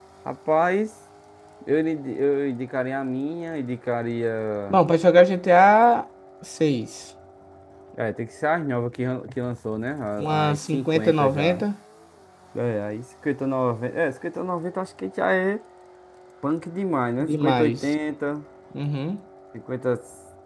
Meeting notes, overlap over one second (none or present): present